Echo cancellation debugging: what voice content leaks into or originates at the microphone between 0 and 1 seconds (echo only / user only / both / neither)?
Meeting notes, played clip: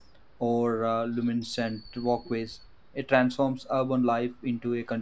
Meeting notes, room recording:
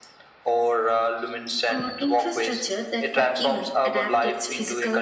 echo only